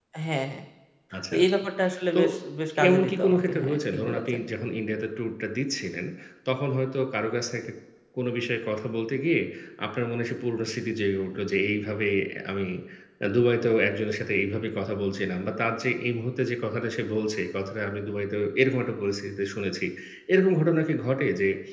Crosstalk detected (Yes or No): Yes